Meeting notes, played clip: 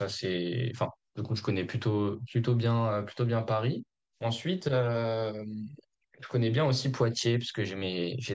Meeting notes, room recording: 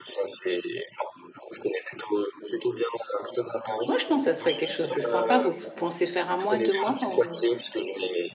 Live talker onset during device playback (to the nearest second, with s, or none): 4 s